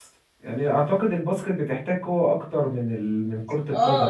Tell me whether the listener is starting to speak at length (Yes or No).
Yes